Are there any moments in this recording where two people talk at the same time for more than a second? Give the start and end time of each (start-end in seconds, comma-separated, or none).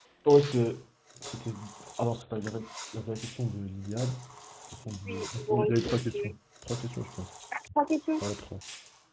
5.0-6.3